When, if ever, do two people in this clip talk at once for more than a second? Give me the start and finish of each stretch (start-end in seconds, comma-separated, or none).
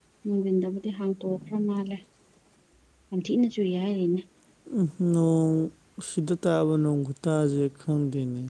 none